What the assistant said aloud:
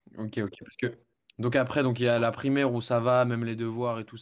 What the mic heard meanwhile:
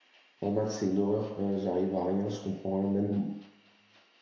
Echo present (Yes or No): No